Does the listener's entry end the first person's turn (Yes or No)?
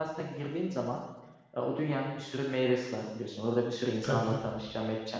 No